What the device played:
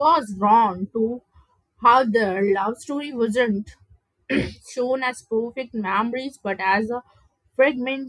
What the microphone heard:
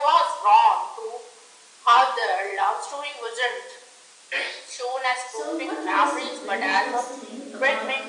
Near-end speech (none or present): present